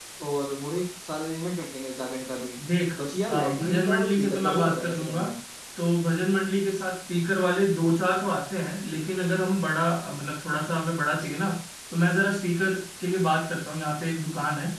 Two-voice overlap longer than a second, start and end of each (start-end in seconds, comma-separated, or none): 3.3-5.2